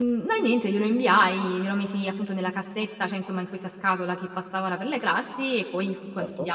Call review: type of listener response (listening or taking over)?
listening